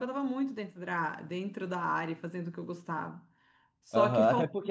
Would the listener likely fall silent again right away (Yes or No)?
No